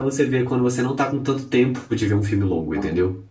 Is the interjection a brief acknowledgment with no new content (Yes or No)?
No